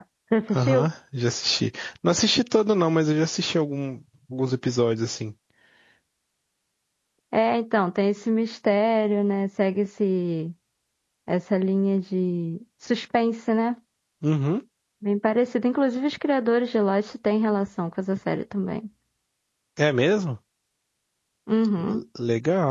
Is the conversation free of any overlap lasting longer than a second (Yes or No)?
Yes